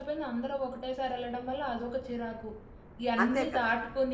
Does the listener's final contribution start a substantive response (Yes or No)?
No